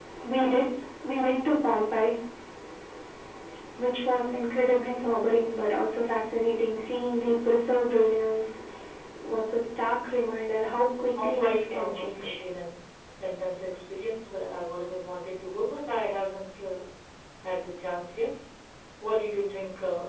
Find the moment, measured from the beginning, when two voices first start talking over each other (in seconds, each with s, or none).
11.2 s